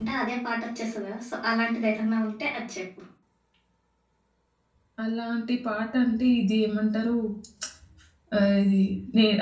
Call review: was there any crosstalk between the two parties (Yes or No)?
No